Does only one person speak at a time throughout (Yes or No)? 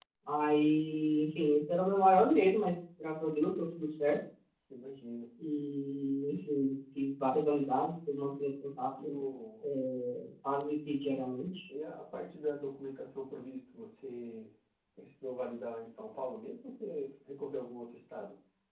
Yes